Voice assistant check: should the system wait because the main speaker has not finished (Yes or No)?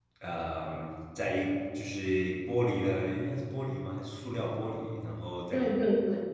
No